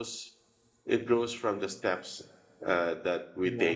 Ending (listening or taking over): listening